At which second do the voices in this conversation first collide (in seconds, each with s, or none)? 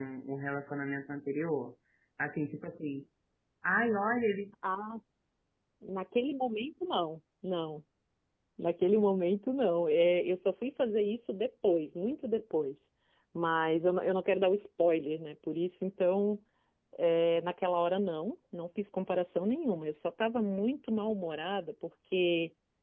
none